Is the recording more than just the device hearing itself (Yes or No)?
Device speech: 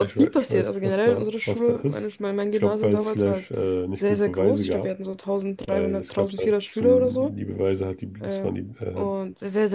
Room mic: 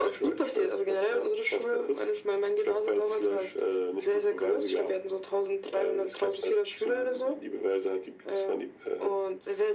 No